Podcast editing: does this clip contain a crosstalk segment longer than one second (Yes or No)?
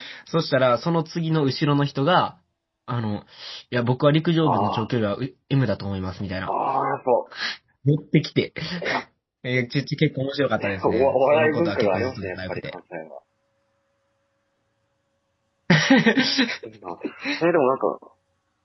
Yes